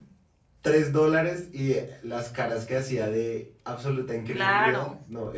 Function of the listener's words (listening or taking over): taking over